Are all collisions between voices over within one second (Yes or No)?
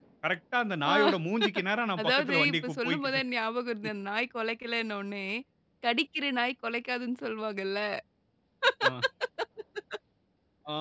No